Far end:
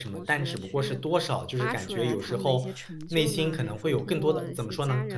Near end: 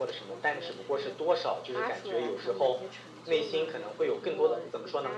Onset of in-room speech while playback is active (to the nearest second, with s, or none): none